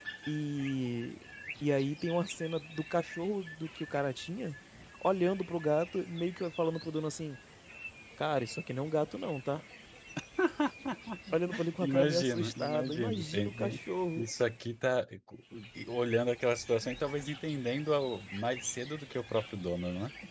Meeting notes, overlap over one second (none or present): present